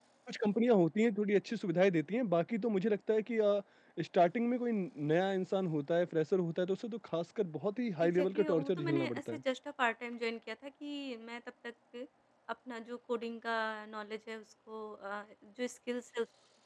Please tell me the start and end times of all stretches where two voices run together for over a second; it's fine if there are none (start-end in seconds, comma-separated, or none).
8.0-9.4